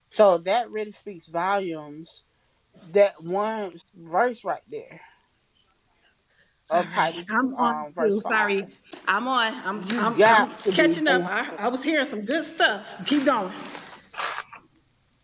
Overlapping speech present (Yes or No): Yes